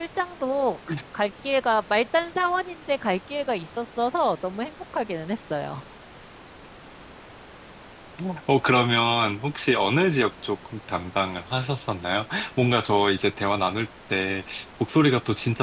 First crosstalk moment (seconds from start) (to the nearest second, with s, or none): none